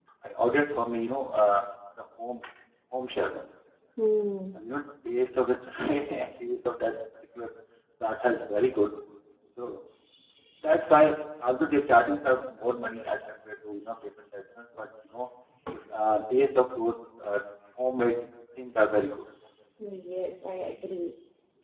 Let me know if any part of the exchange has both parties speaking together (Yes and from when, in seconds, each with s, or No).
No